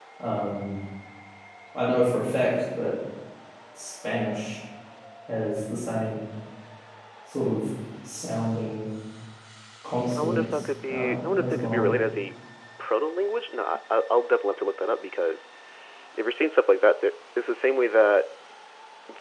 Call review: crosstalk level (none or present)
present